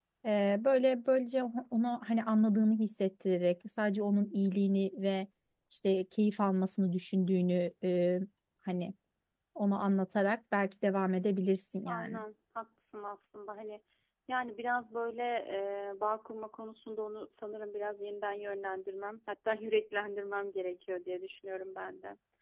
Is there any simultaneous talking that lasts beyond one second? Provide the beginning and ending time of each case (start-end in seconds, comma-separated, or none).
none